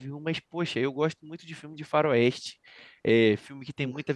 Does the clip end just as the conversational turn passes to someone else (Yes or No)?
No